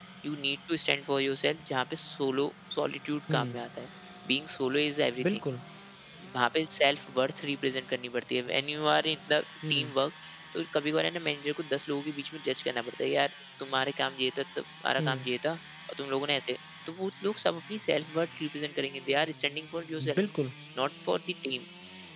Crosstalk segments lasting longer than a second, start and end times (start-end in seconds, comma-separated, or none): none